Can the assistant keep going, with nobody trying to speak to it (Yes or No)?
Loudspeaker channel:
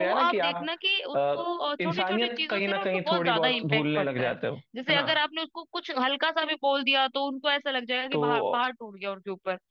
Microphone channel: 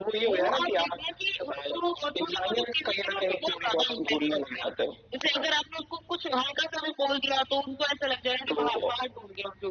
Yes